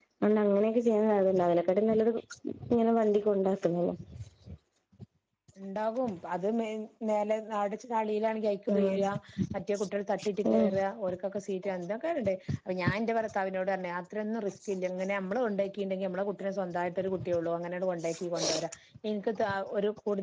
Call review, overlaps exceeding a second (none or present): none